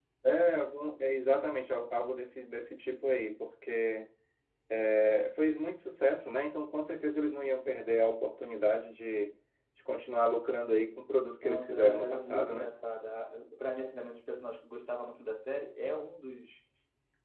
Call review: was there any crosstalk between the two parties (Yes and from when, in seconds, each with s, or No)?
Yes, from 11.4 s